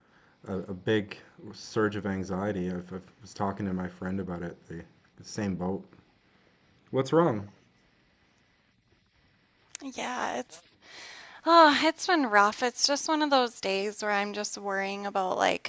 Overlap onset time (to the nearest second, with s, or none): none